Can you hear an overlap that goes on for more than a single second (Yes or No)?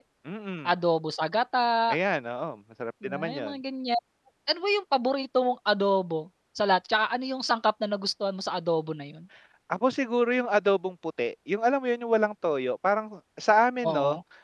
No